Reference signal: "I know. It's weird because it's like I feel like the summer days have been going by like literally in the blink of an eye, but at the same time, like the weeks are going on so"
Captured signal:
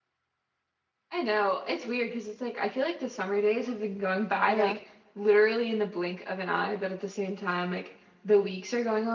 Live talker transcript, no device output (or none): Yeah.